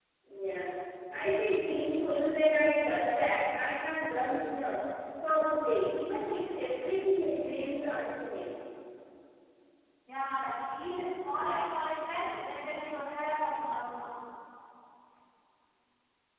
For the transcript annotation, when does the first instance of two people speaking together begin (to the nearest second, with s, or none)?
none